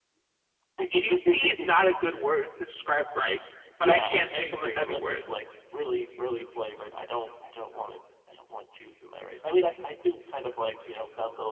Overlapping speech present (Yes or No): Yes